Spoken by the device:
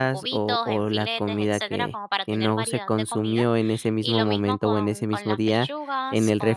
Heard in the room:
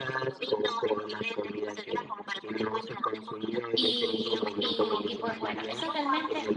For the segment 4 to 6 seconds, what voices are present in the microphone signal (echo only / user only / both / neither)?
both